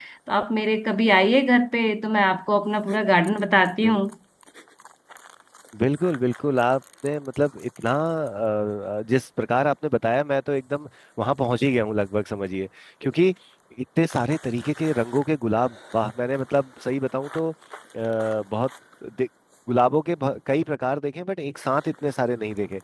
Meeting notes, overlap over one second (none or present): none